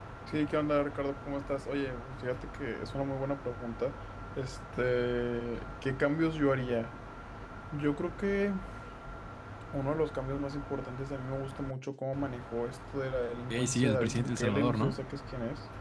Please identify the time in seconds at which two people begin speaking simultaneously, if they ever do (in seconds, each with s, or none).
13.5 s